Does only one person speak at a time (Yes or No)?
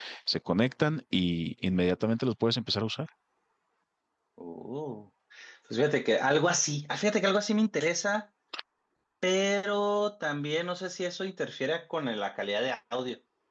Yes